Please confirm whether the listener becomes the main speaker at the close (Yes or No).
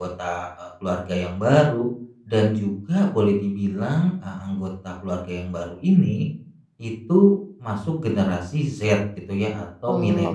Yes